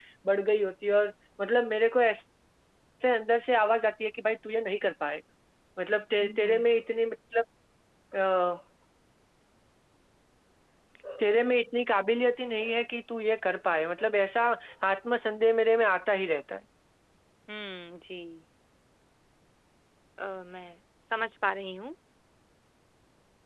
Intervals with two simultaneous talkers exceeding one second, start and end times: none

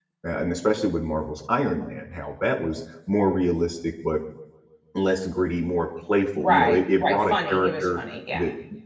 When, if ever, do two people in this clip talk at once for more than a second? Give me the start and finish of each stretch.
6.4-8.0

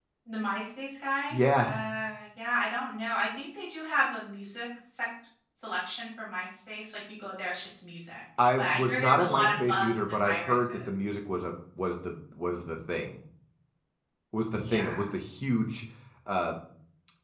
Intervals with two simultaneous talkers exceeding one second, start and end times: 8.6-10.9

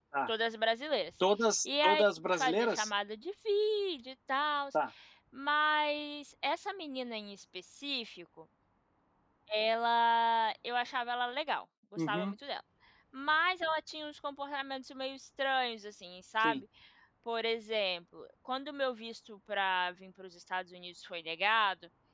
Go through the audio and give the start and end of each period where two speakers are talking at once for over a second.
1.6-2.9

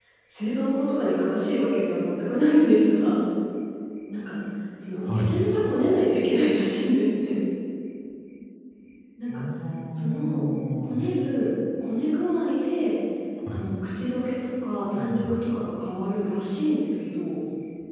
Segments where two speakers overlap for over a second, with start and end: none

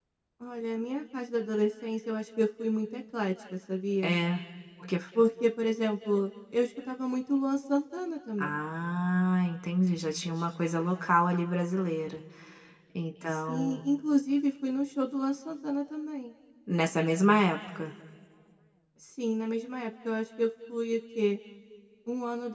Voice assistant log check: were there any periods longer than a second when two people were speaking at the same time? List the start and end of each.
none

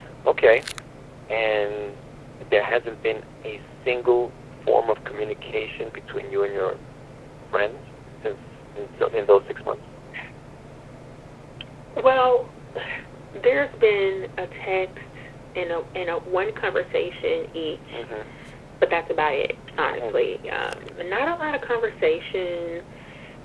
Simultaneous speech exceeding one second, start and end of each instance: none

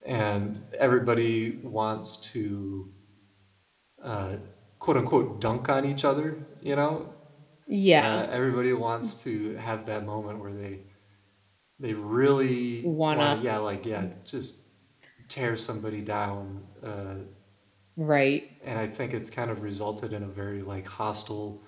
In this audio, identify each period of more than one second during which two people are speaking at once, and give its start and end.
none

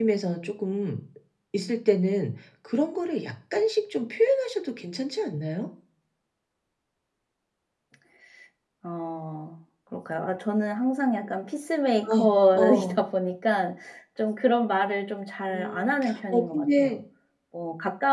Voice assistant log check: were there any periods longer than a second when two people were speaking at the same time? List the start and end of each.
15.5-17.0

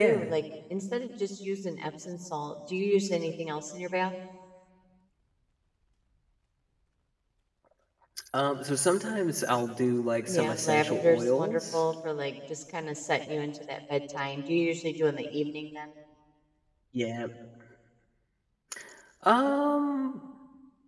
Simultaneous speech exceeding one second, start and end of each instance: 10.3-11.8

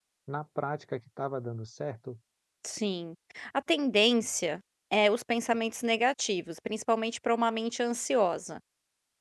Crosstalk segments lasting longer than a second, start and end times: none

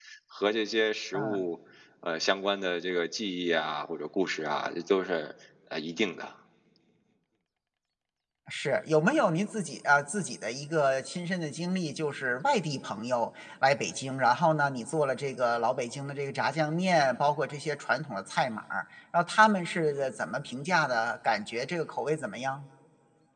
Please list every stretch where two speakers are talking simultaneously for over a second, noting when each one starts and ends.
none

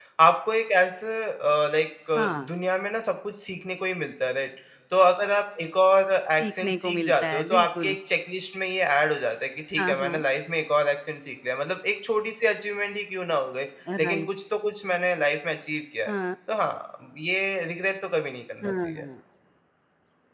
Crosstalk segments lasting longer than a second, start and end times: 6.4-8.0

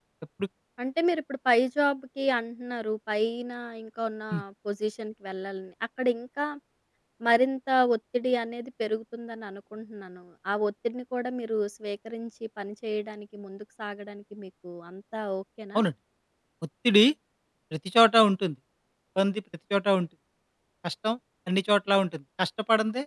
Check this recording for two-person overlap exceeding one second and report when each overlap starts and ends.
none

